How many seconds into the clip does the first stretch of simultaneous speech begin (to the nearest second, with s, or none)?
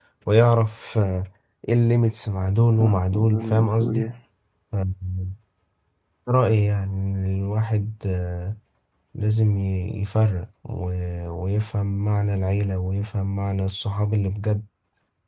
3 s